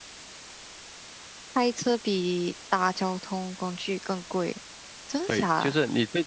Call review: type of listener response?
taking over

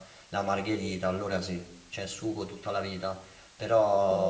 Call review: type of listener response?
listening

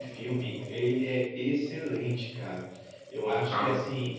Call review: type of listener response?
listening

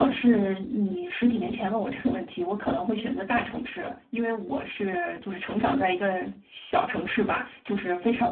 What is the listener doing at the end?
listening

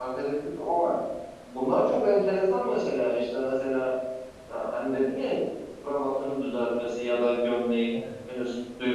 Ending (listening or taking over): listening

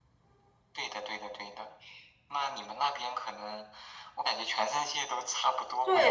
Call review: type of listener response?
taking over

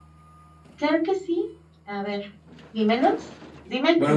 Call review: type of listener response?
taking over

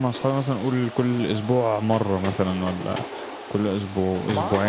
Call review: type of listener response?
taking over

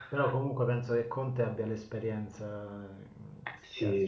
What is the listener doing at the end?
taking over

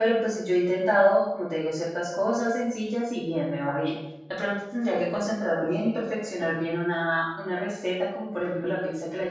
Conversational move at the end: listening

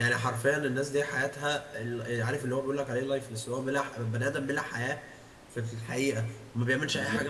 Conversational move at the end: listening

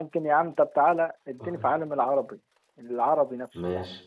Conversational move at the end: taking over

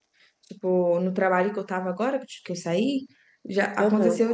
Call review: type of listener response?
listening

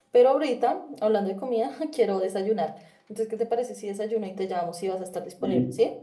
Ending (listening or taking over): taking over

